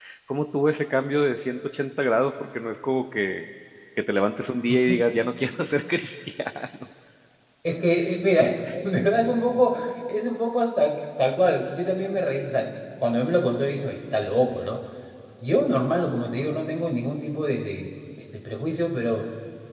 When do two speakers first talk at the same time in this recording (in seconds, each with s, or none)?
none